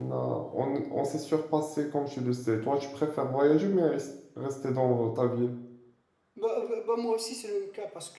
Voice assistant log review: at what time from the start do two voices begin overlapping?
none

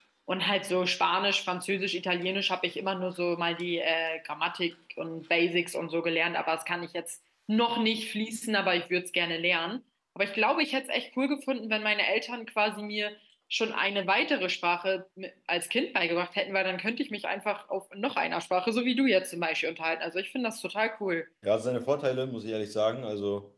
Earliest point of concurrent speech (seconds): none

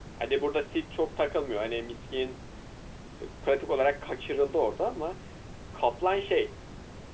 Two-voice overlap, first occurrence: none

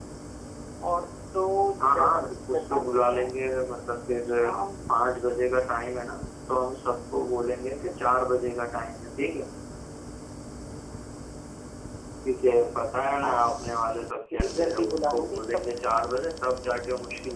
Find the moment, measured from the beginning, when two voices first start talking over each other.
1.8 s

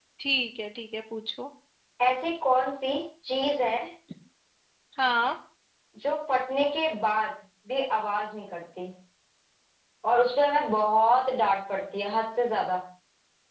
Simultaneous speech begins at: none

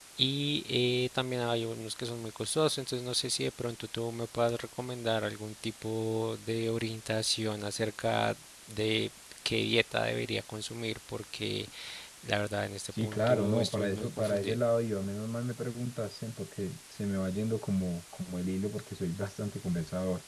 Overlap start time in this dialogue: 13.0 s

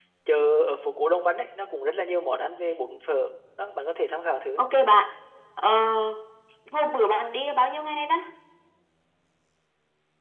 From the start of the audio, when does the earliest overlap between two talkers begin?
none

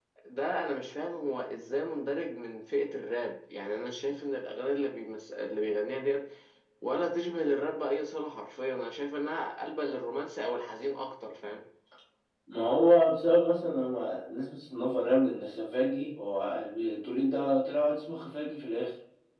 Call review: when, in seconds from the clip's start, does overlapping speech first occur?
none

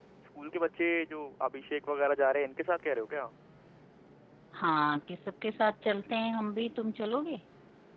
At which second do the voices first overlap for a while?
none

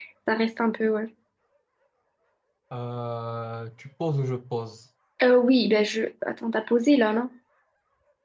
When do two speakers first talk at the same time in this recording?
none

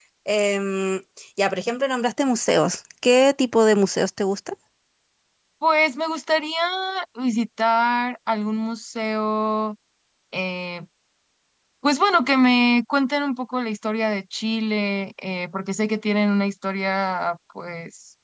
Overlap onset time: none

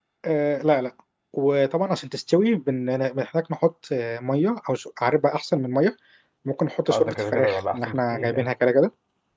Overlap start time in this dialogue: 6.9 s

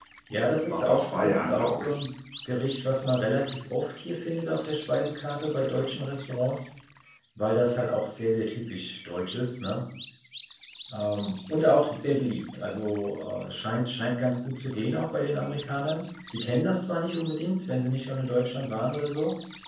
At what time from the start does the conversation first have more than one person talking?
0.7 s

